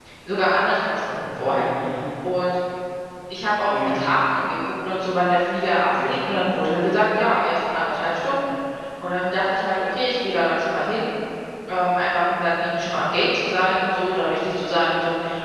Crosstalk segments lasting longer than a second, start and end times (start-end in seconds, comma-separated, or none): none